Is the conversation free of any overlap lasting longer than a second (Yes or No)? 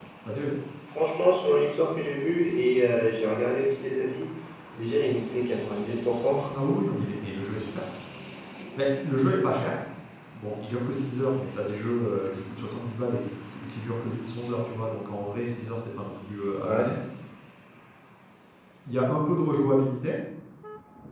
Yes